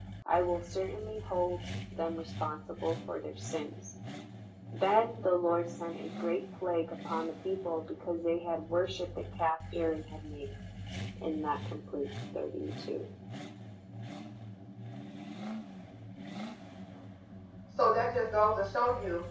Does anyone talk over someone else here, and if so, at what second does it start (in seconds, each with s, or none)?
none